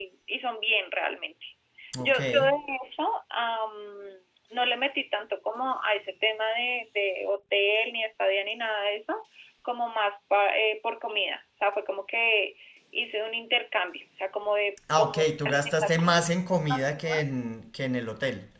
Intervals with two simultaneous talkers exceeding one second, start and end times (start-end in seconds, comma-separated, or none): 14.9-16.2